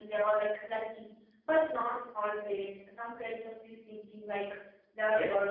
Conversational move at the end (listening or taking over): taking over